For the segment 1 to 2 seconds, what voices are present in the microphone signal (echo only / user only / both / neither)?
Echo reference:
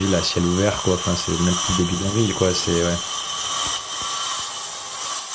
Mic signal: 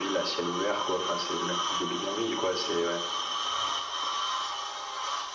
echo only